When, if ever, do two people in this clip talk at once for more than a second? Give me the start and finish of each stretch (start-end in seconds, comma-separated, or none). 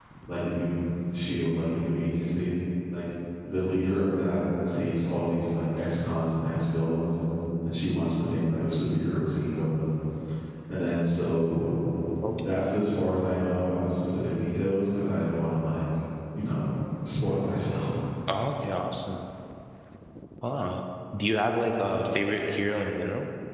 none